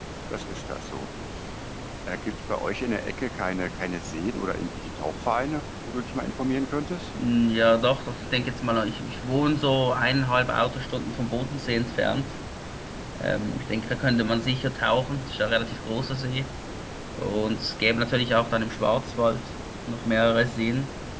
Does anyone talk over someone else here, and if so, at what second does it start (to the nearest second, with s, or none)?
none